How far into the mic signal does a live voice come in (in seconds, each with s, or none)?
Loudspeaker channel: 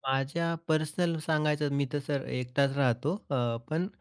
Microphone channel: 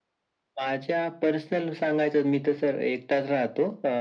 none